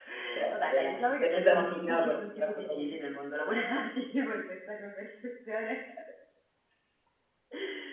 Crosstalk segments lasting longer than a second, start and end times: 0.5-3.0

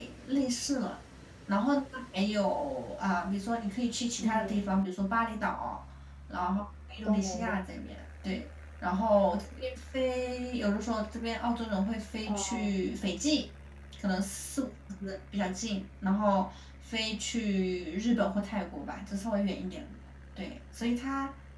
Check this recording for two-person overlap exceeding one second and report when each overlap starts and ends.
none

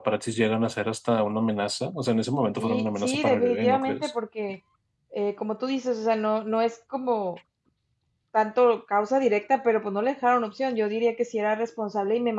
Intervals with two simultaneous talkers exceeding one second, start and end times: 2.6-4.1

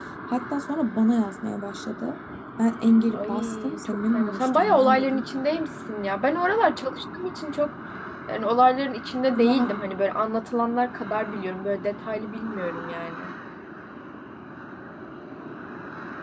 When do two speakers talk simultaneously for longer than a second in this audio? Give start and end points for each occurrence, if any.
3.1-5.2

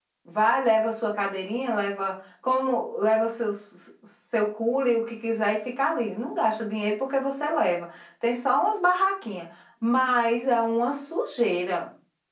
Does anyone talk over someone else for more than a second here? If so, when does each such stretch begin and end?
none

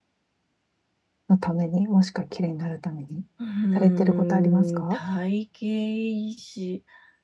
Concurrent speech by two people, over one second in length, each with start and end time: 3.8-5.0

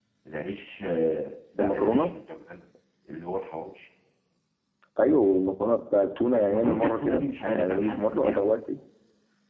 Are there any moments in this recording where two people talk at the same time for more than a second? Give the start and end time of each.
6.5-8.5

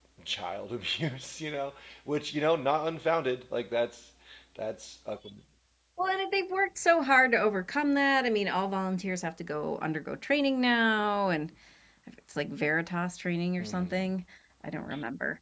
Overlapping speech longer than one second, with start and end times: none

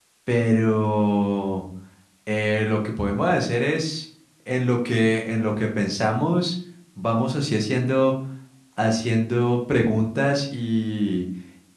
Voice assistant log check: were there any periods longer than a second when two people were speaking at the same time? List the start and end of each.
none

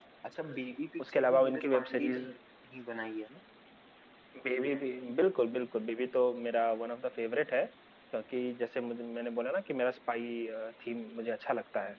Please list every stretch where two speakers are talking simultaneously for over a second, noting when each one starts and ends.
1.0-2.3

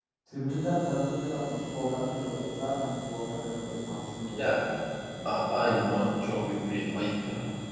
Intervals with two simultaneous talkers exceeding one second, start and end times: none

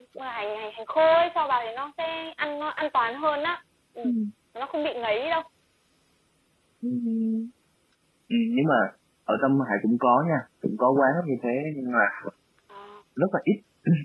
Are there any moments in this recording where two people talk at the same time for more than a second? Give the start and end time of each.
none

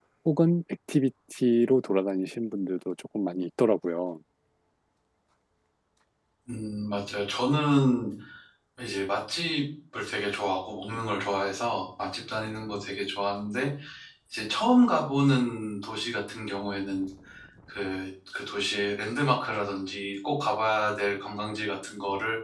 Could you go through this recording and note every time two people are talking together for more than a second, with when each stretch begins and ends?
none

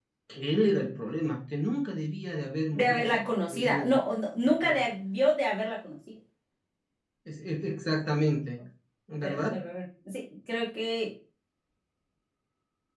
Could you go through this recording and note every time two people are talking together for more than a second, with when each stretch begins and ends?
2.7-3.9

